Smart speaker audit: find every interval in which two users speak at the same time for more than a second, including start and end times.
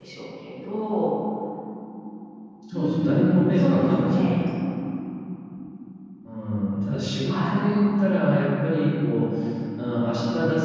2.7-4.4

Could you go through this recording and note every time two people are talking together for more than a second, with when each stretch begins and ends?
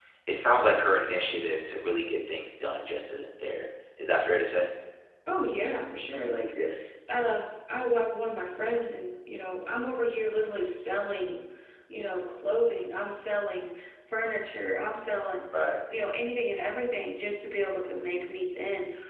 none

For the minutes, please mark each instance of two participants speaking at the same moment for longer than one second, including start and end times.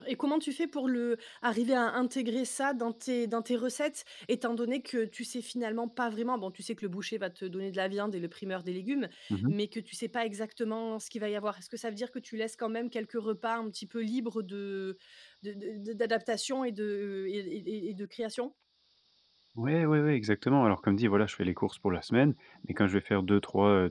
none

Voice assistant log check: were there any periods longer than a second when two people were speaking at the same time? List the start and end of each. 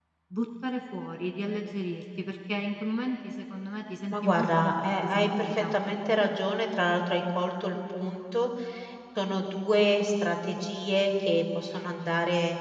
4.1-5.7

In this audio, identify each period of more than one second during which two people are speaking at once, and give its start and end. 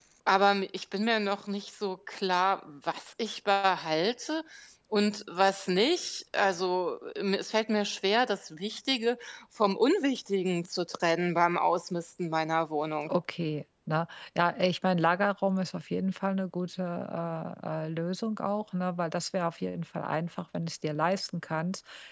none

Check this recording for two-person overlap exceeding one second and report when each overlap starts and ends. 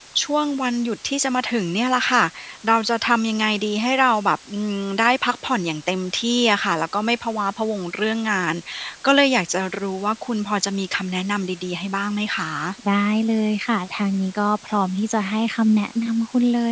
none

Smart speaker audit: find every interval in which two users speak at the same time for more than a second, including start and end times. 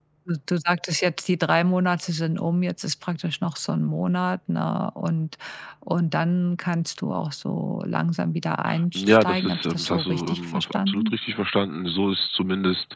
8.9-11.1

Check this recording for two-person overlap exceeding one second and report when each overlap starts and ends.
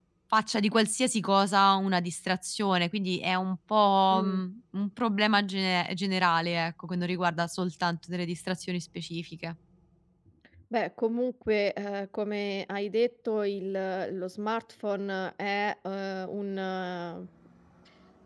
none

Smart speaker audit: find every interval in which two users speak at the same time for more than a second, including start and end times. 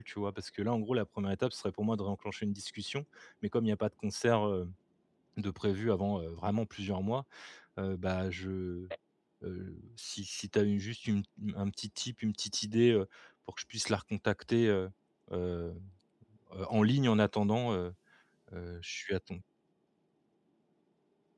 none

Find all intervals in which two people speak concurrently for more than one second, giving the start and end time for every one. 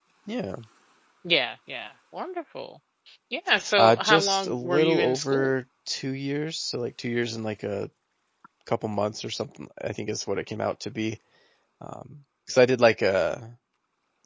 3.8-5.5

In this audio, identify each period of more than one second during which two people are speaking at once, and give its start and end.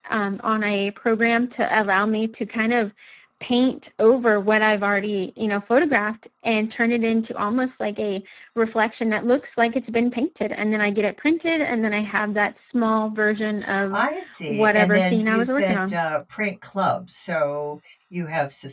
14.5-16.0

